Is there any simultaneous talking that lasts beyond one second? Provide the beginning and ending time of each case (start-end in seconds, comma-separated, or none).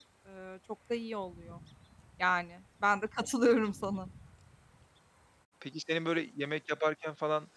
none